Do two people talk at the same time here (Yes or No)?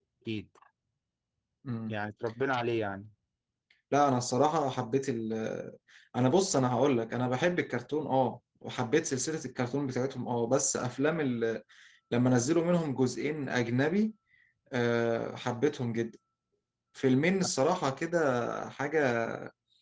No